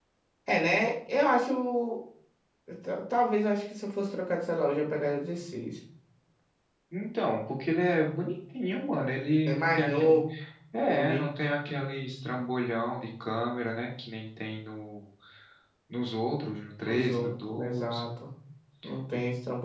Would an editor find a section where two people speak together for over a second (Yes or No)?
Yes